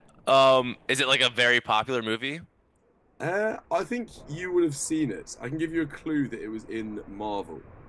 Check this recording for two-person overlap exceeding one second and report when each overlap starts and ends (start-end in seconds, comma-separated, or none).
none